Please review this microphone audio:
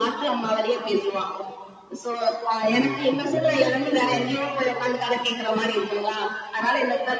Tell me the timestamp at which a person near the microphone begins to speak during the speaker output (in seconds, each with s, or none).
2.8 s